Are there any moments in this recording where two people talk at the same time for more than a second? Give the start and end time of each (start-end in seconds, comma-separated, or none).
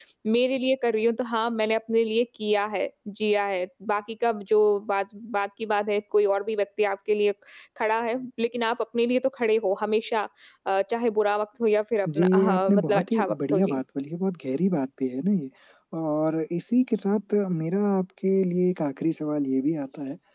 12.2-13.8